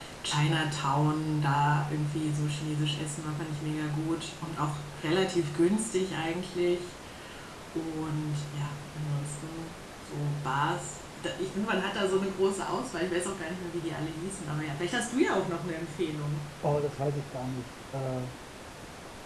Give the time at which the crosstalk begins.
none

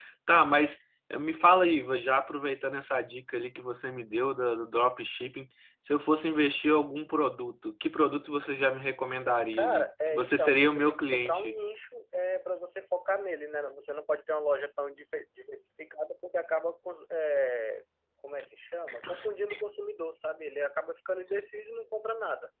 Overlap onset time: 10 s

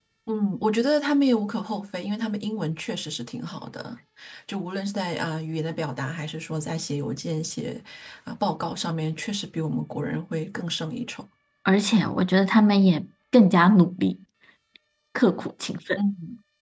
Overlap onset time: none

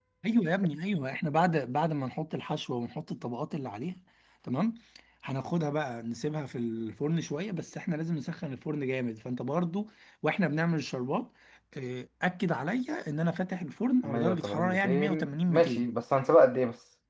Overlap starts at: 14 s

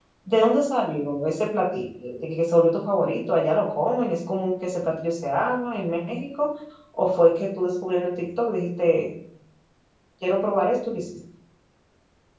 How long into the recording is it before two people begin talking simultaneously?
none

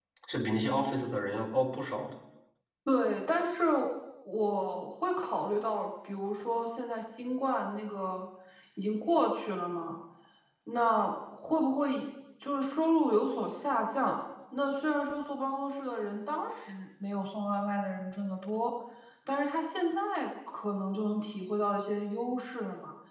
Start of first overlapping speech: none

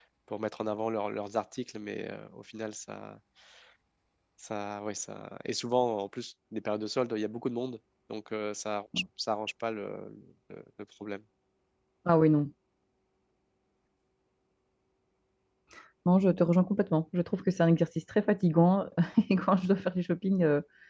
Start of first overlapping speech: none

